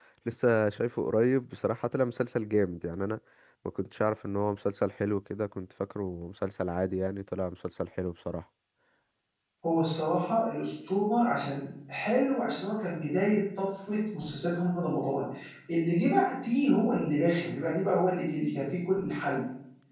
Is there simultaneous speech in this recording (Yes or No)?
No